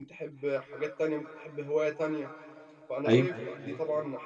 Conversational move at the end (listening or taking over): listening